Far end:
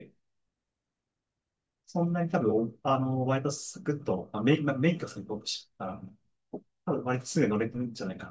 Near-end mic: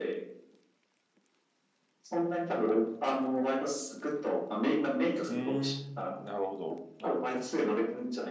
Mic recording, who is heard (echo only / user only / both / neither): both